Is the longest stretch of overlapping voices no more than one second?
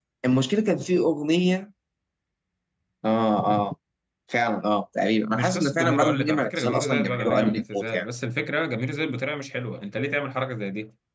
No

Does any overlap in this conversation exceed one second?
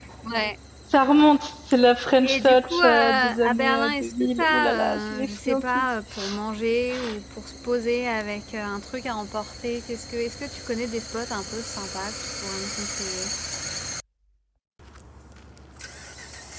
Yes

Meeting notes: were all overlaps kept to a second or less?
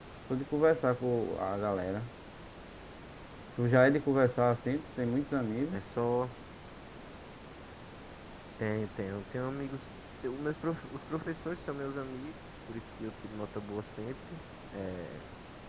Yes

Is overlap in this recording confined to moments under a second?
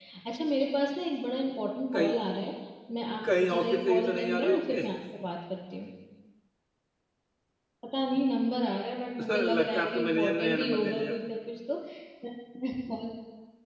No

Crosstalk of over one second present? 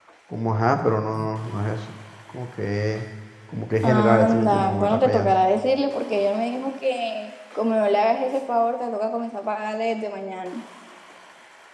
Yes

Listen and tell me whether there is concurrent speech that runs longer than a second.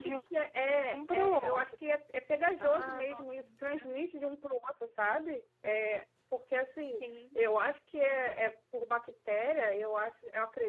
Yes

